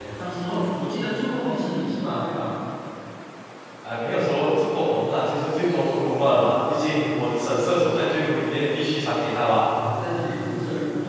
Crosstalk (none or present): none